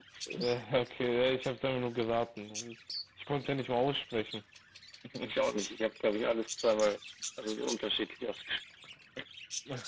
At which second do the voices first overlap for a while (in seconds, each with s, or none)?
none